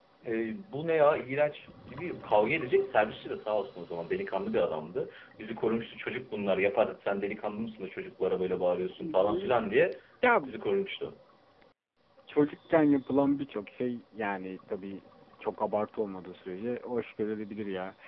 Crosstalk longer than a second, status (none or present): none